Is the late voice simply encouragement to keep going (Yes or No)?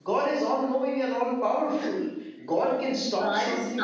No